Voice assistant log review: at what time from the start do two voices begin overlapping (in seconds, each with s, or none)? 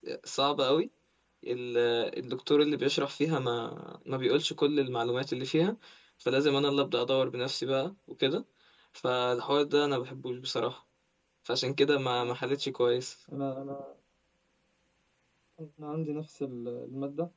none